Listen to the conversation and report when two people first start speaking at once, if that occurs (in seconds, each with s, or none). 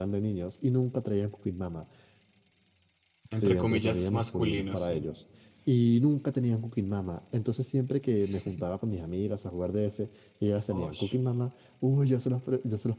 3.4 s